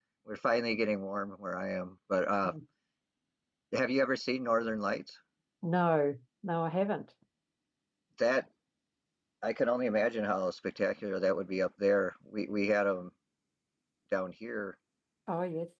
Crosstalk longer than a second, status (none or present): none